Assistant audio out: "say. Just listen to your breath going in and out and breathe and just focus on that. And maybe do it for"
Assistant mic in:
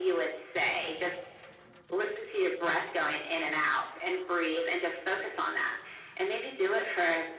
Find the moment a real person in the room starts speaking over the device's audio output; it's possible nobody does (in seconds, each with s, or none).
none